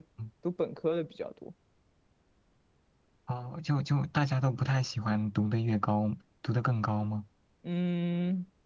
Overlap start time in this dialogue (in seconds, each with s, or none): none